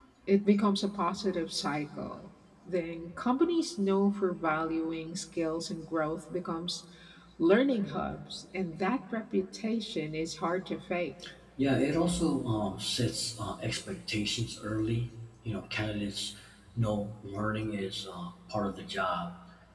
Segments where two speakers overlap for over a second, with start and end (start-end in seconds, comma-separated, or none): none